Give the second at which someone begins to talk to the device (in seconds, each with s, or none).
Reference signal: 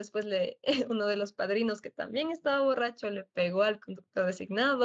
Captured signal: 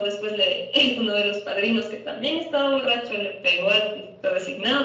none